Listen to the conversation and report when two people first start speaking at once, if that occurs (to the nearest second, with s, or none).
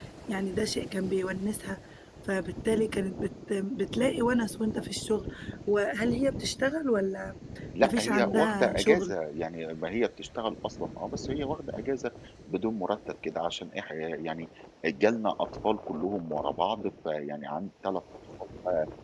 8 s